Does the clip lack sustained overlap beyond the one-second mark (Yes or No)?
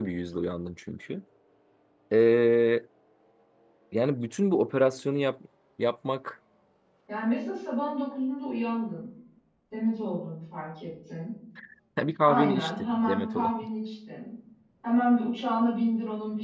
No